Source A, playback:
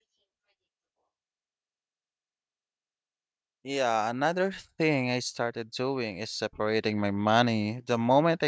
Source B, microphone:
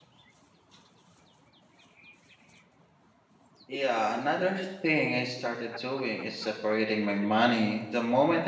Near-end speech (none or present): none